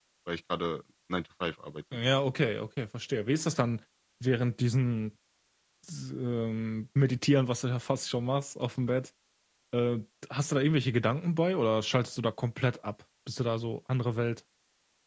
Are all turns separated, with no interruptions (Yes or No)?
Yes